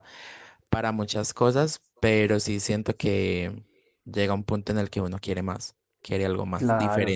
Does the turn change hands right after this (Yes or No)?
Yes